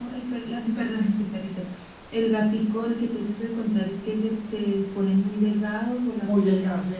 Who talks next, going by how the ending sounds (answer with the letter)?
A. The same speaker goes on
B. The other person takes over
B